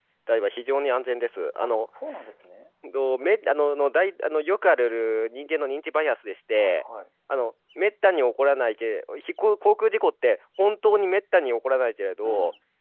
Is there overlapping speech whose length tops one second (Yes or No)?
No